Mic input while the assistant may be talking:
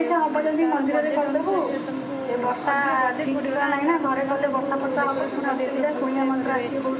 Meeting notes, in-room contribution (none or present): present